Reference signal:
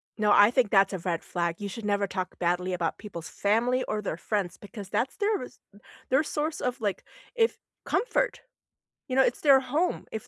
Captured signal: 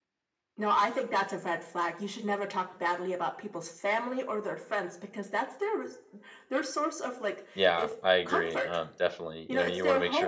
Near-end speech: present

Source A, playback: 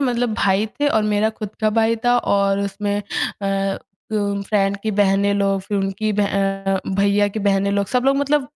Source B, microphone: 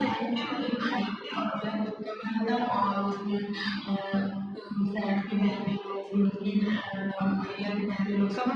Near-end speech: none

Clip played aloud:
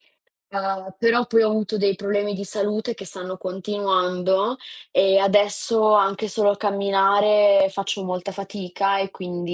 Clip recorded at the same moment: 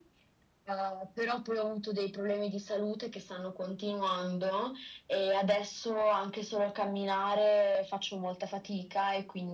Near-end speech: none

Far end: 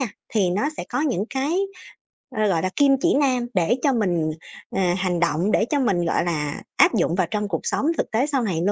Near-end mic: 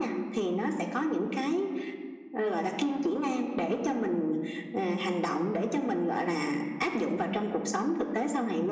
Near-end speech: none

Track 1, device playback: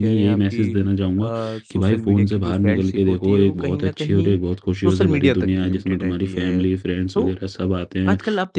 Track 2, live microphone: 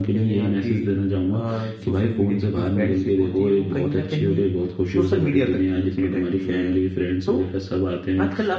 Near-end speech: none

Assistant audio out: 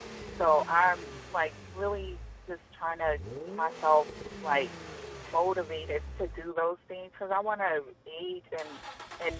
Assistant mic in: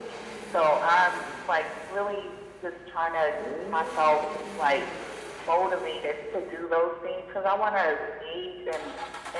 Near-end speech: none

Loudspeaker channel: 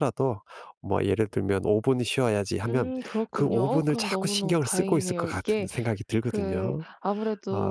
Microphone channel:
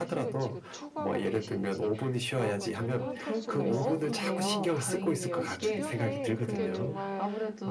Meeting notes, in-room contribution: present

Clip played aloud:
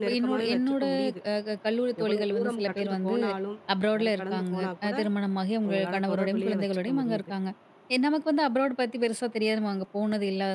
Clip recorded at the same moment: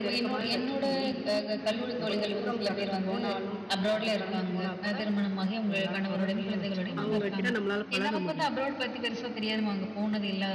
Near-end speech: present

